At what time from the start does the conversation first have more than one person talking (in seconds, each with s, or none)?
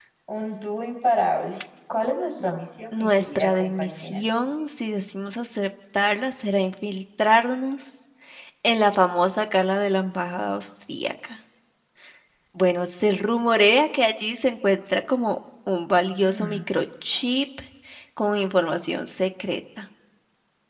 2.9 s